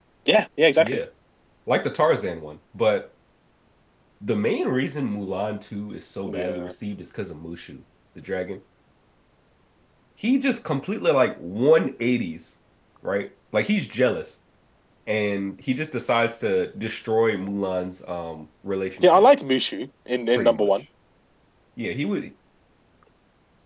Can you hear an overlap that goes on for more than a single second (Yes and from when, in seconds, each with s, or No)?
No